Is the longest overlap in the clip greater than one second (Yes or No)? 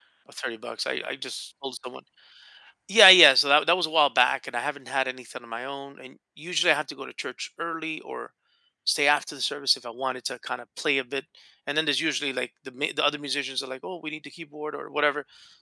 No